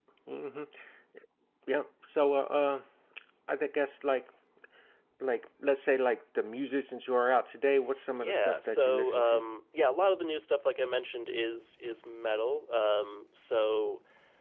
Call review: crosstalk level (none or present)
present